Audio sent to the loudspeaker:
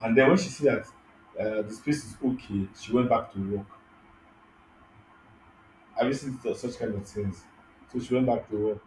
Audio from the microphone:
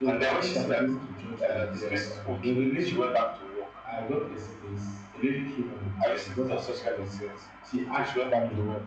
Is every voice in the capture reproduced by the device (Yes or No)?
No